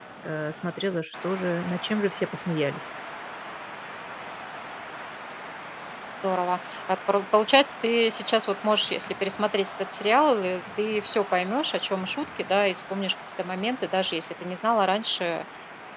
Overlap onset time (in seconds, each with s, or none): none